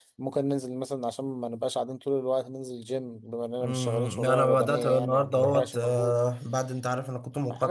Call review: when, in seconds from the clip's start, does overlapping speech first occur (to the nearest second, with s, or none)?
4 s